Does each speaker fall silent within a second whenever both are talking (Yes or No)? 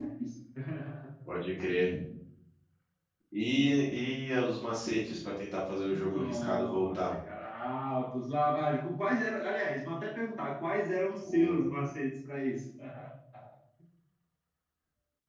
No